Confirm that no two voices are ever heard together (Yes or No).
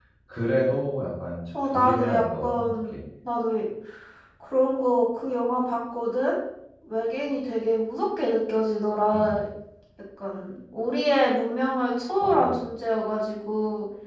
No